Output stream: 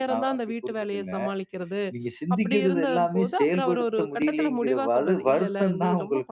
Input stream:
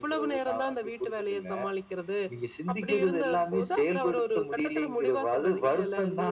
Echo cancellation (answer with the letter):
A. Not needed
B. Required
B